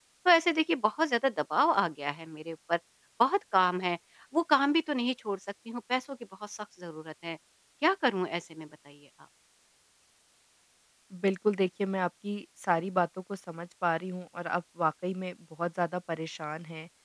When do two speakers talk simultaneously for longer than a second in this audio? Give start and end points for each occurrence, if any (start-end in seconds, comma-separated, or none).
none